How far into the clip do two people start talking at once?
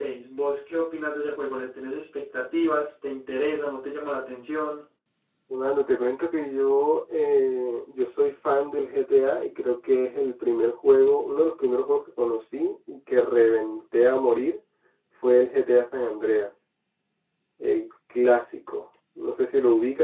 none

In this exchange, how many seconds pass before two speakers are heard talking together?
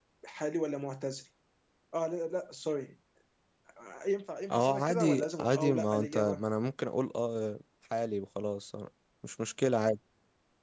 4.5 s

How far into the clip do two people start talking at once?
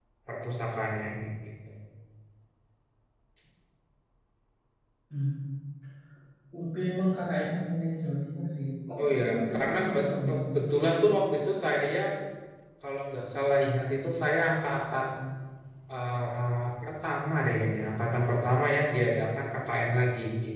9.0 s

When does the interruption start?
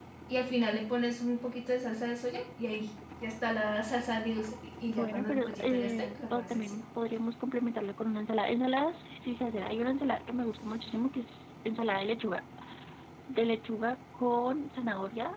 4.9 s

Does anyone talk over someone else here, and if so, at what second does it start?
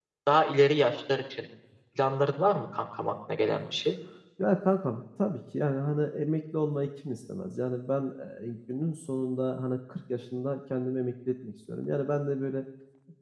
none

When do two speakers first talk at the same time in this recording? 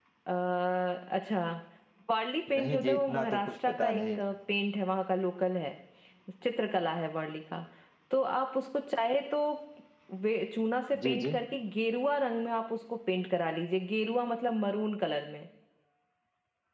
2.6 s

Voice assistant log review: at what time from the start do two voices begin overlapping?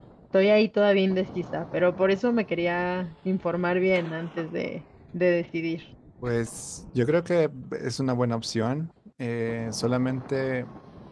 none

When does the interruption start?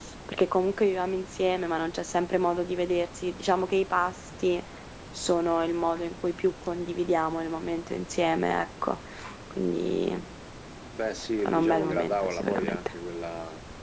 11.4 s

